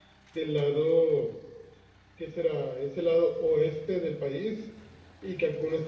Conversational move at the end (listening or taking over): listening